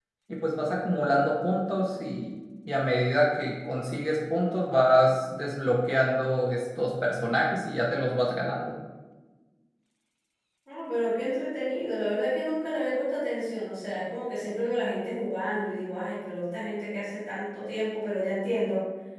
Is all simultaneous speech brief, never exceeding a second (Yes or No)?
Yes